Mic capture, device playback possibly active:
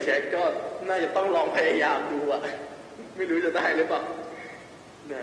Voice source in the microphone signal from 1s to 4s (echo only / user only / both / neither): echo only